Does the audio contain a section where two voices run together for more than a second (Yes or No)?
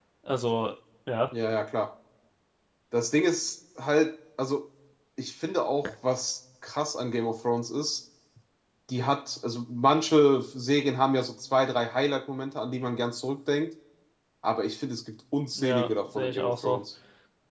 Yes